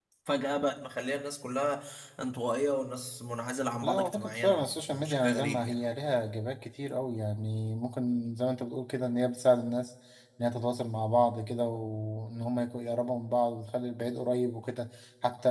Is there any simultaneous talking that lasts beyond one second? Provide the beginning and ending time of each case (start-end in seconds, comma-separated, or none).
3.8-5.8